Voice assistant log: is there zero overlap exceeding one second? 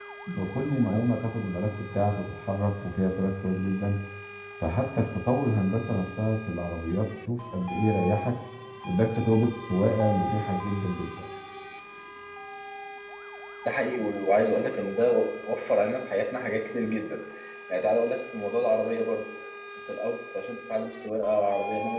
Yes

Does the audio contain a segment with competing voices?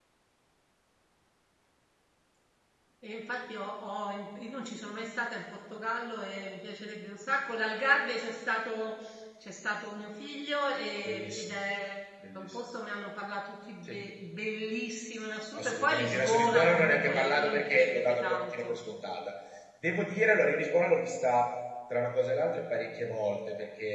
Yes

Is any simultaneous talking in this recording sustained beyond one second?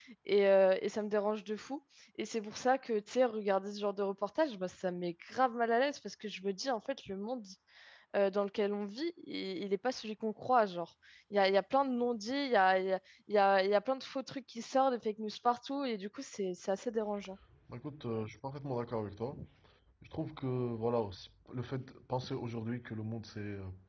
No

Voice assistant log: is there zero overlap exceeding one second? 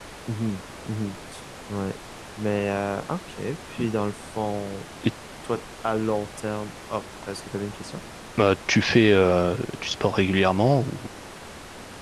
Yes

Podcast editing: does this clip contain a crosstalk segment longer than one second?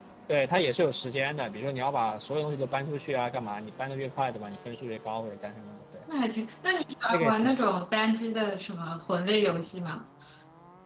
No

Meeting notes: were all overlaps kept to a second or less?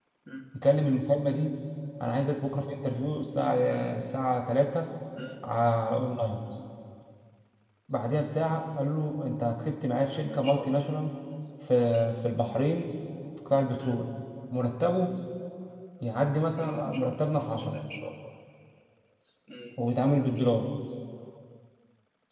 No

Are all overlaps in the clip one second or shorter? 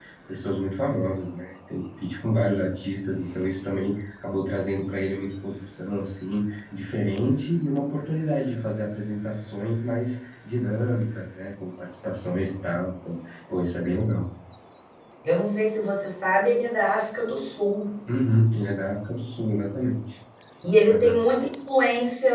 Yes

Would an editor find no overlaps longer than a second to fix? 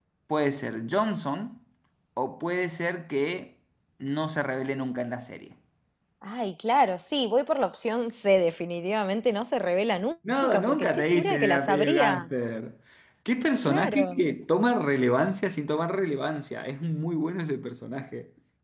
No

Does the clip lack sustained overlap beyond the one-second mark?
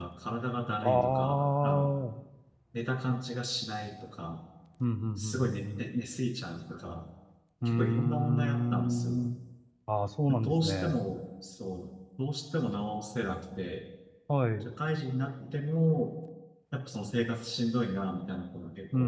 No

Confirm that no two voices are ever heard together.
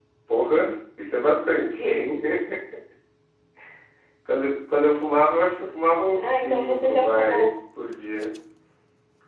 No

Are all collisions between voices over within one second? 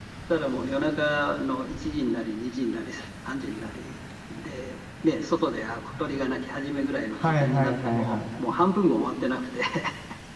No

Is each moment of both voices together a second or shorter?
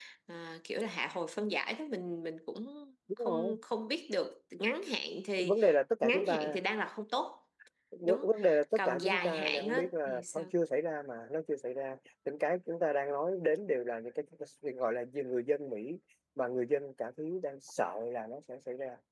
No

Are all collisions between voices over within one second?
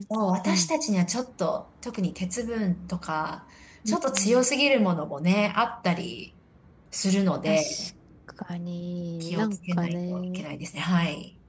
No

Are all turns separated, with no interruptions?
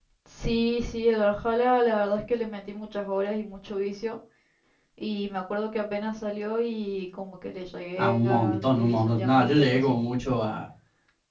No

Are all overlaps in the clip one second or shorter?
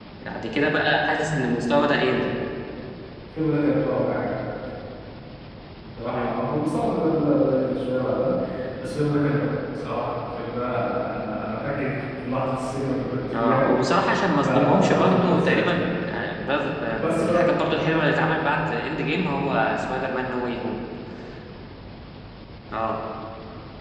No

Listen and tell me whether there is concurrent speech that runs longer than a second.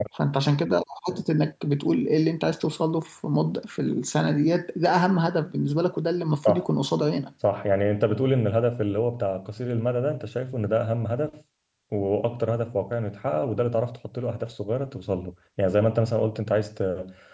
No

